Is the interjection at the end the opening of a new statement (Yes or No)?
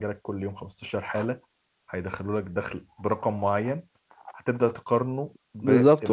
Yes